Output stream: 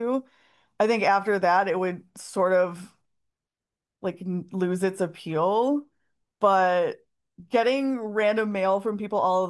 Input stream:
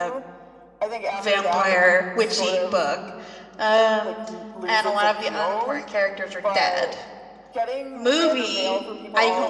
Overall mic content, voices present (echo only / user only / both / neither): both